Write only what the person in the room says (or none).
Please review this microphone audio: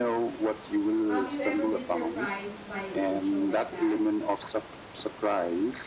have you ever been surprised by a show like that?